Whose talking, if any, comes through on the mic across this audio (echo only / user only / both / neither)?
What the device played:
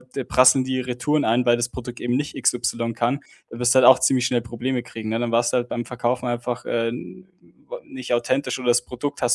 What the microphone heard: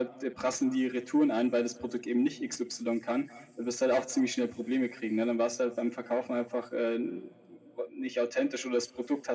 echo only